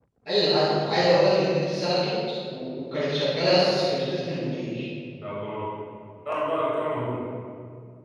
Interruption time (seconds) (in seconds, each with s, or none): none